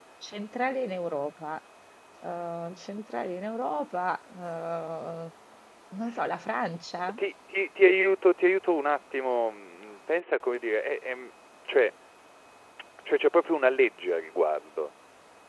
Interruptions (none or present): none